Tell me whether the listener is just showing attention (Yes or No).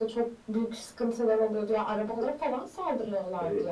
No